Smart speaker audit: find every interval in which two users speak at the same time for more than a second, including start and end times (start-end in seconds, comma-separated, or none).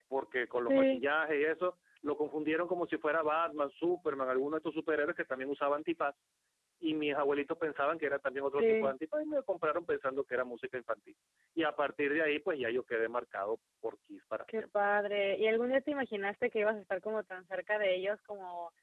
none